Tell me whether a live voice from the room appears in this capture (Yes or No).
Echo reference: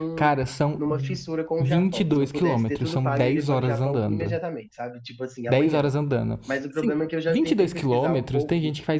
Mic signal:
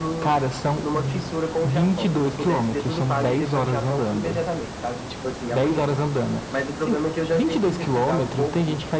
No